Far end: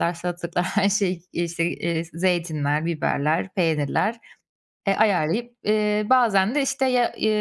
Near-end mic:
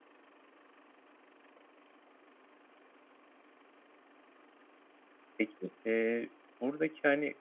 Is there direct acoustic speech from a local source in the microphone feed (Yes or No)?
Yes